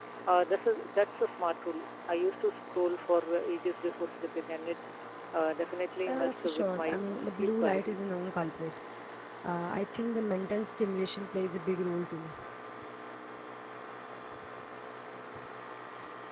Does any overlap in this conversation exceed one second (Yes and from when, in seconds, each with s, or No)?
Yes, from 6.1 s